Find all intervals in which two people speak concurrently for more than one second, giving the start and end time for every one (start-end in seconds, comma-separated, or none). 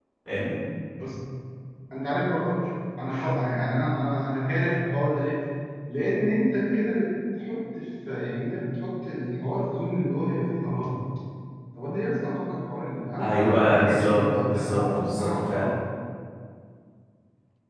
13.2-15.7